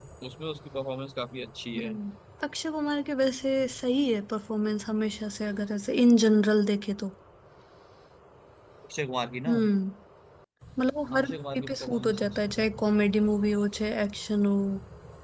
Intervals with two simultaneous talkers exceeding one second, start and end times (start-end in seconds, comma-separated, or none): 11.2-12.5